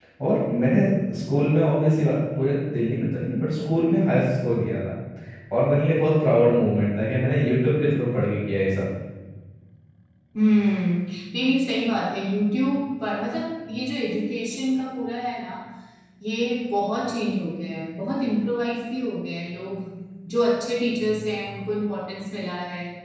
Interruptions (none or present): none